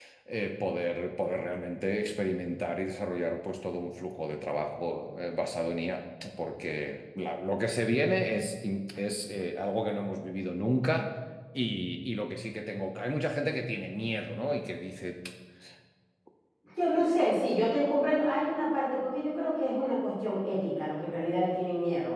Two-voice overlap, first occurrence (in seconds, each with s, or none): none